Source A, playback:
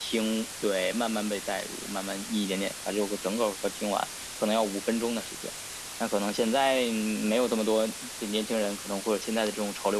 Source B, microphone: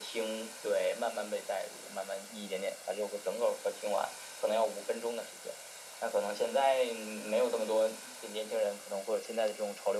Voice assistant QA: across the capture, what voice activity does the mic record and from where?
echo only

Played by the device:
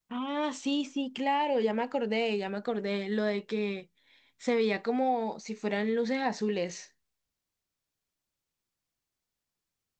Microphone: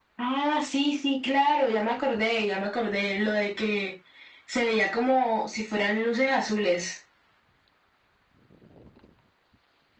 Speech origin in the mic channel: echo only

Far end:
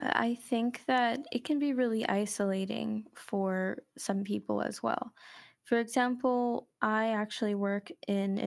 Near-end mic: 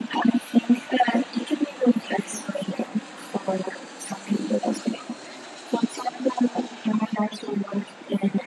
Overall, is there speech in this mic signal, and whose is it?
echo only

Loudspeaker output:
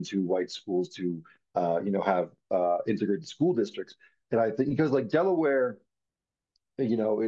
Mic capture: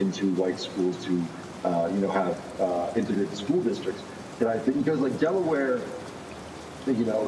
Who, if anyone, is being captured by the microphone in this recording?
echo only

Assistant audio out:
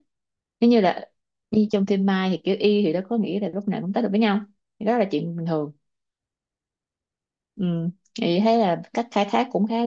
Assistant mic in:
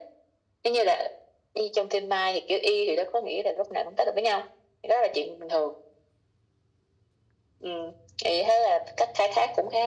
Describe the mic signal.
echo only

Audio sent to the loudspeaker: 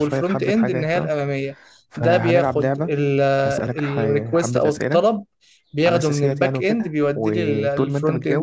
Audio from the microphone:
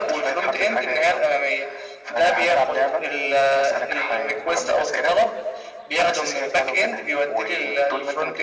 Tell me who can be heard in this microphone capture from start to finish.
echo only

